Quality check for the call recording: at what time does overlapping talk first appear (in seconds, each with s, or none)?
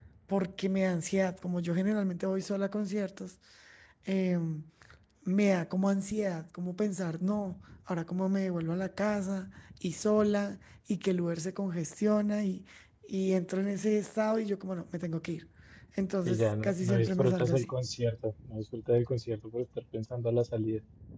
16.2 s